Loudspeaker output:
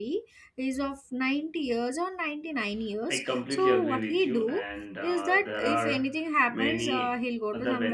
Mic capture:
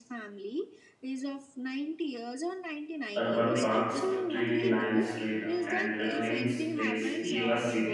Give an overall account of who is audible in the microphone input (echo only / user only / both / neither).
both